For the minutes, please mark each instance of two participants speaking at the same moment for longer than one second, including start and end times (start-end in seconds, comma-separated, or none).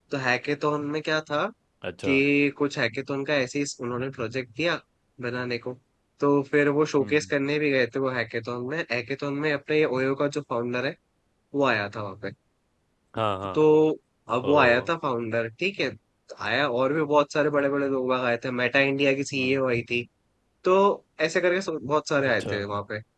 none